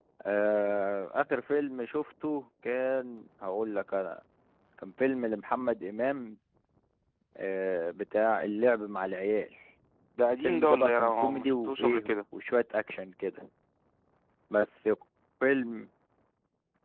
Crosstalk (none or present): present